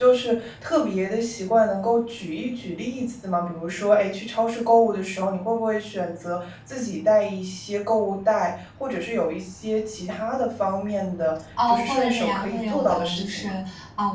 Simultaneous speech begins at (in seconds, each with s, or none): 11.6 s